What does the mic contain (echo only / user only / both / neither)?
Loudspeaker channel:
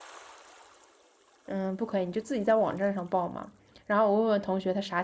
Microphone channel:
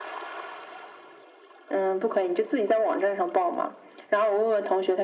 echo only